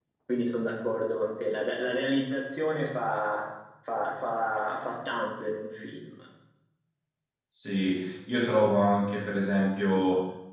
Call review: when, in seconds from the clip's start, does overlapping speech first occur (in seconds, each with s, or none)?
none